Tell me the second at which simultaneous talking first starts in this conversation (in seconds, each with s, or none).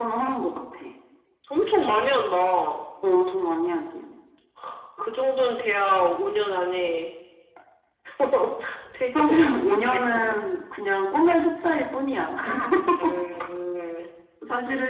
9.2 s